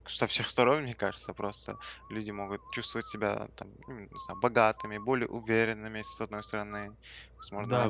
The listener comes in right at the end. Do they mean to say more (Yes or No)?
Yes